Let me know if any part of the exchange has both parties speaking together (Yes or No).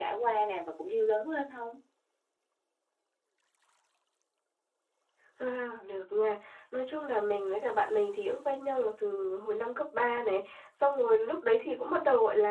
No